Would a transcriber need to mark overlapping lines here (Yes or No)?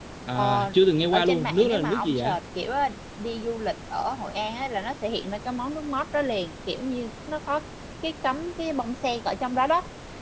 Yes